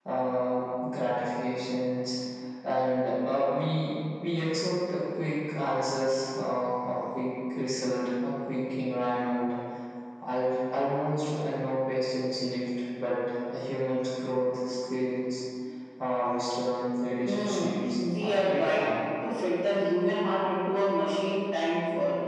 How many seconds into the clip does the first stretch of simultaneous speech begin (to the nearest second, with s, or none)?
17 s